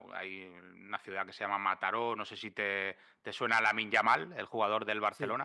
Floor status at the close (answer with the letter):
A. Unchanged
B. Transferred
A